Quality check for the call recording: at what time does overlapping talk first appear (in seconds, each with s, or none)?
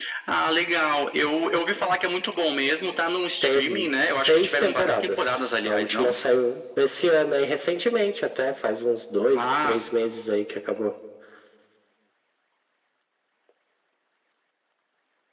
3.4 s